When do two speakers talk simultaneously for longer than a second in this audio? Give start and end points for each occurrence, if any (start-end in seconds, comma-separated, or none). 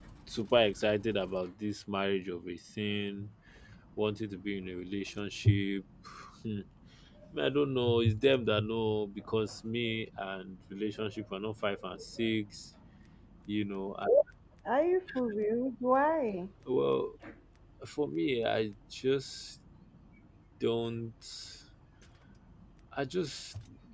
none